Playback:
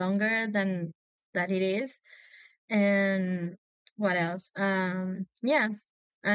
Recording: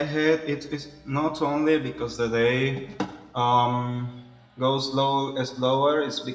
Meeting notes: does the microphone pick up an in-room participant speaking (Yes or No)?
Yes